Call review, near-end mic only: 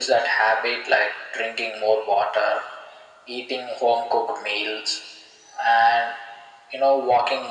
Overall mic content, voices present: echo only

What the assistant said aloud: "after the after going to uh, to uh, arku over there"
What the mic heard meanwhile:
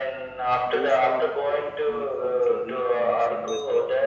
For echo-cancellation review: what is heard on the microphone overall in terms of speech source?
both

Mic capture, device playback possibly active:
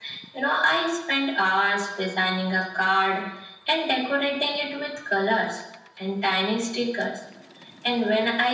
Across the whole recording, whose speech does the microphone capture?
echo only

